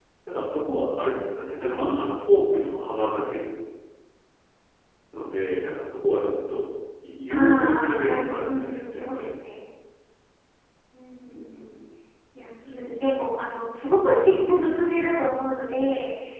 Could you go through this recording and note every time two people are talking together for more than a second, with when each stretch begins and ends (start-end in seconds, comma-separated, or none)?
7.3-9.3